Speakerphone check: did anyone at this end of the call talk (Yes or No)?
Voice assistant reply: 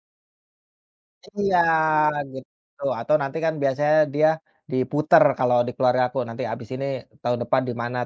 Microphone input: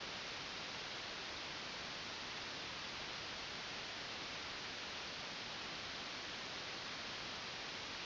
No